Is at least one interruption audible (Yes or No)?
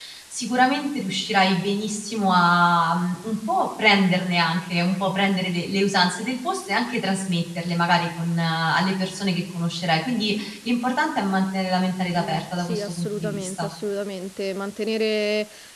Yes